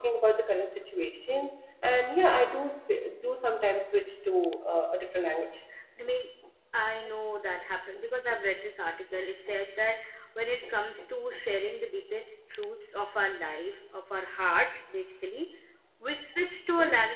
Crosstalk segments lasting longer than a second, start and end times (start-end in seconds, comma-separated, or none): none